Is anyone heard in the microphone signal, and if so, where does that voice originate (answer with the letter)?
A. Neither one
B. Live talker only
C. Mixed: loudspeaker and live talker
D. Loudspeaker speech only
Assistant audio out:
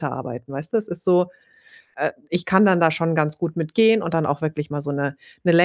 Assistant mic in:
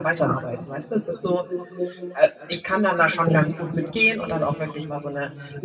D